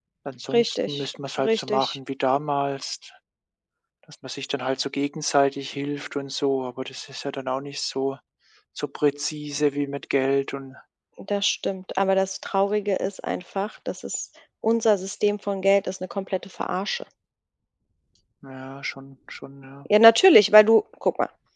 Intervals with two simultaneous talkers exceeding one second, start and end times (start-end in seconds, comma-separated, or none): 0.5-2.0